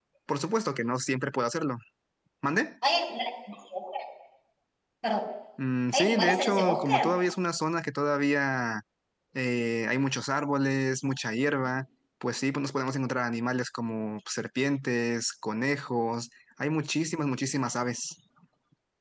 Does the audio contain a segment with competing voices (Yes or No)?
Yes